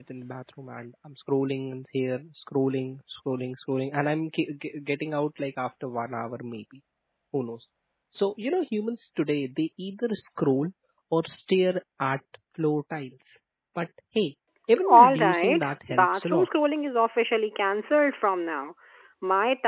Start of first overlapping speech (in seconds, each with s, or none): 14.8 s